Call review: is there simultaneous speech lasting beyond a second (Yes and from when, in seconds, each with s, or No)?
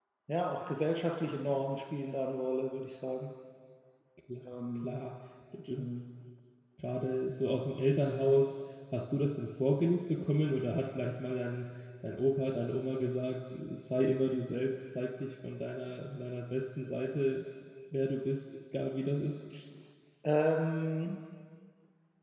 No